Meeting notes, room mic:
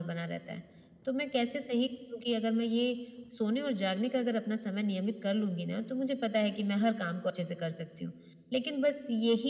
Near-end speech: none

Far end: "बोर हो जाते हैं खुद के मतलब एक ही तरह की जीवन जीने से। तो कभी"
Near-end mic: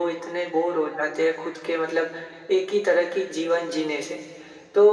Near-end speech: none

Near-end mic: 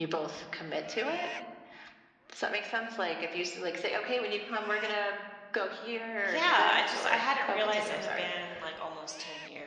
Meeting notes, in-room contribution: present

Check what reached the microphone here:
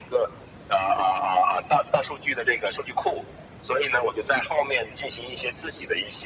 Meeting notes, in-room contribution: none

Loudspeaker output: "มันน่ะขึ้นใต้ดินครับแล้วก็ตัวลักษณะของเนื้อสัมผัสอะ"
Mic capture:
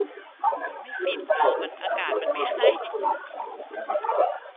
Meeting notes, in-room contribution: present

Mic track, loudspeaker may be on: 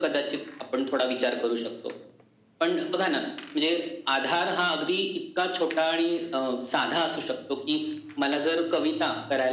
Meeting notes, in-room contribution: none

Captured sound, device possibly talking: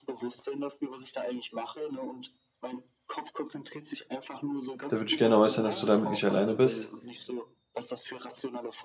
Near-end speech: present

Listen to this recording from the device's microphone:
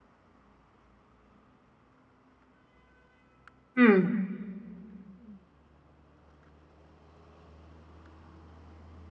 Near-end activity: present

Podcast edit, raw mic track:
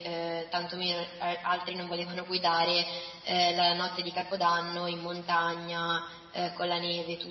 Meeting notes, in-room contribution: none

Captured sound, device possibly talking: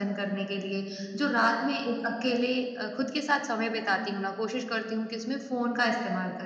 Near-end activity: none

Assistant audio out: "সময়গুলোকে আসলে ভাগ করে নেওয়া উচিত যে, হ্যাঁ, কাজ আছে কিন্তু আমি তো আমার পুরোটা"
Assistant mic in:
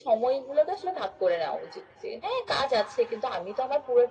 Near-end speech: none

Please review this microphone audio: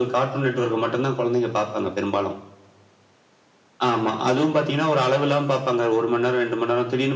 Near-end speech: none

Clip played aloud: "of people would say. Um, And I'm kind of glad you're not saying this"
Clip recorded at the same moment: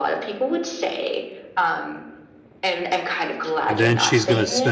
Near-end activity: present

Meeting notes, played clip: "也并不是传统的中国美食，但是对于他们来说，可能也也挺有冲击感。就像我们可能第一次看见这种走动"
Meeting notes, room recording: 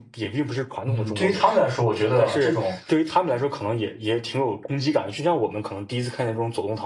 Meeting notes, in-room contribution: present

